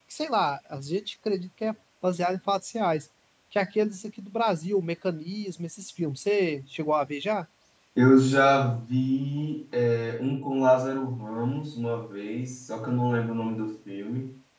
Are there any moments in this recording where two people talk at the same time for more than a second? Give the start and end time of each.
none

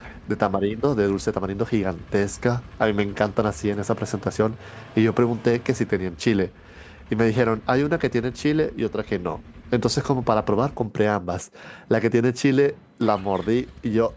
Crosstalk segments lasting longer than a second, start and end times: none

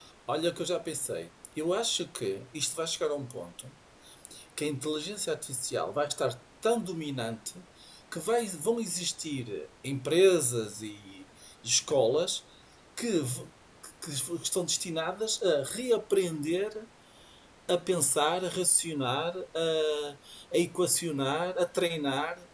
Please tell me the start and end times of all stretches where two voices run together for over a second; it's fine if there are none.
none

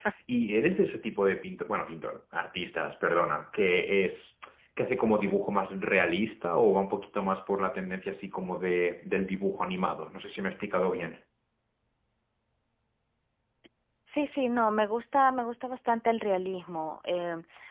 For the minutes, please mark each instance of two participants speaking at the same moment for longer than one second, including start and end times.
none

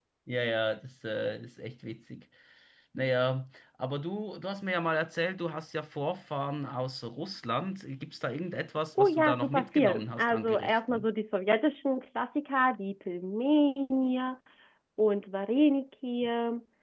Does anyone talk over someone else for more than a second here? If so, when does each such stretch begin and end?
9.0-11.1

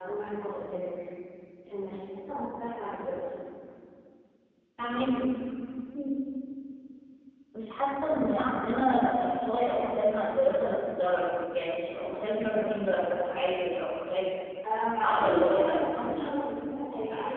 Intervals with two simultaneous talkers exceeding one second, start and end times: 15.0-16.2

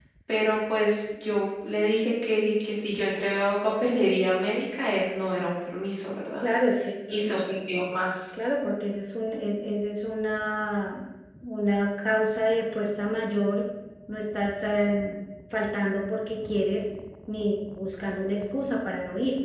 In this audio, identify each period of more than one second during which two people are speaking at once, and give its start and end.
none

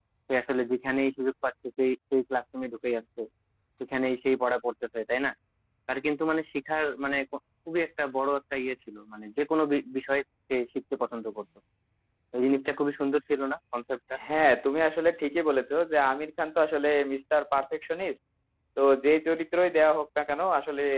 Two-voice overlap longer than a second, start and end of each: none

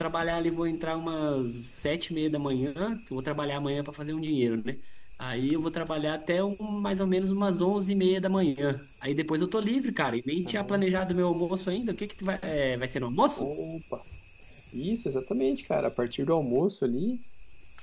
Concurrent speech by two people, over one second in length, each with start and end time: none

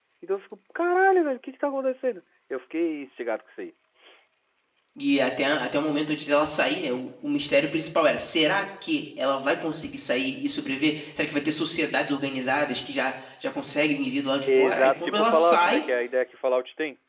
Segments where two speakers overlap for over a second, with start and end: 14.5-15.8

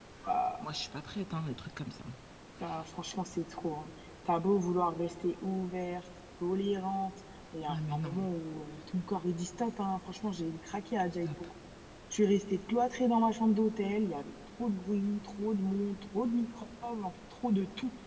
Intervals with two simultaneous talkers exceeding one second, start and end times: none

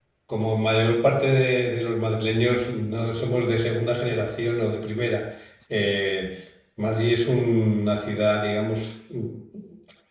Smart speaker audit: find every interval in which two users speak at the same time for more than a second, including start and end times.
none

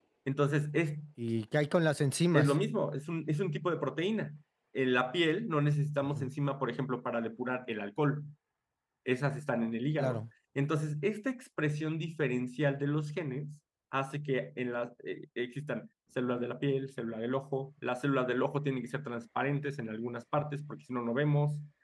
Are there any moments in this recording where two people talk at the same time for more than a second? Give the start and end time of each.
none

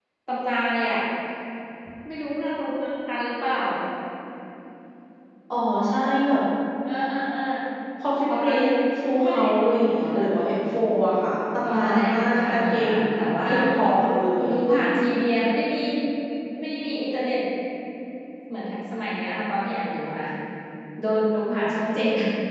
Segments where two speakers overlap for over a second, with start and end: 11.6-12.9

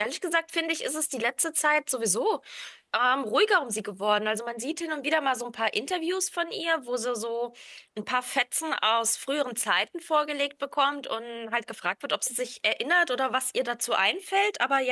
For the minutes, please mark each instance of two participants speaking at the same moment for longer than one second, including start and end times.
none

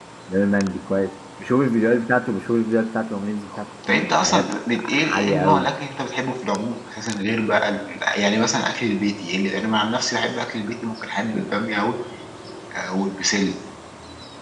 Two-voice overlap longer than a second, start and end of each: 3.5-5.7

